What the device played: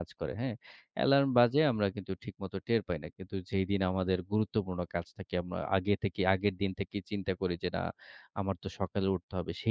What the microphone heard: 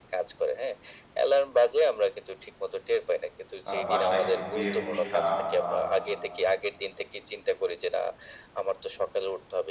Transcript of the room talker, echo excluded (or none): আ বাসায় কোনো বিয়ের অনুষ্ঠান বা